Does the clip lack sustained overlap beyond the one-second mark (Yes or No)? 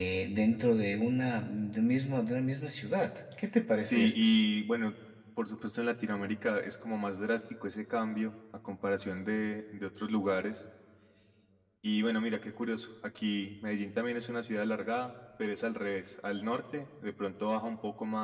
Yes